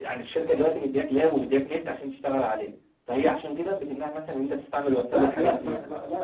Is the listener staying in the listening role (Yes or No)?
No